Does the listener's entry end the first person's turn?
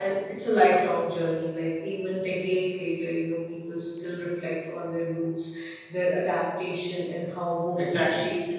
Yes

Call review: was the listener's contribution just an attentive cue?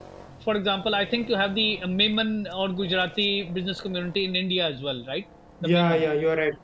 No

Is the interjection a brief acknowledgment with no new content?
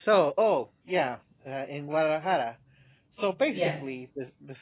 Yes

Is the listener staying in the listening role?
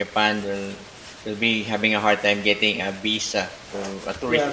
No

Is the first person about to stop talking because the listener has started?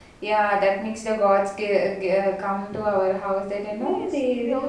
Yes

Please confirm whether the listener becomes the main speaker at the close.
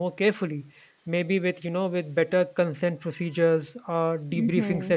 No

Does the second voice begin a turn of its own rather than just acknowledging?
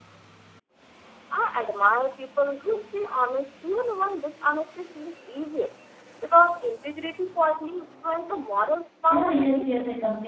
Yes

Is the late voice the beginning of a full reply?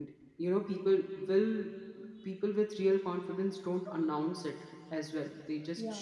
No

